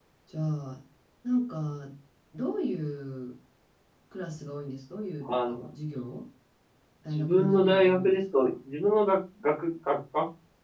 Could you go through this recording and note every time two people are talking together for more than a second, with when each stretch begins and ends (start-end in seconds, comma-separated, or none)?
7.2-8.5